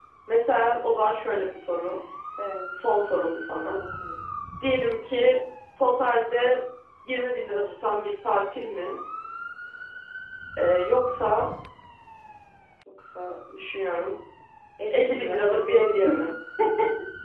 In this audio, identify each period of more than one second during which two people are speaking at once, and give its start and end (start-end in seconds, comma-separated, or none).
14.9-16.2